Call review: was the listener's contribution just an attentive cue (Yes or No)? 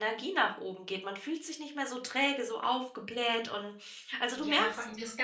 No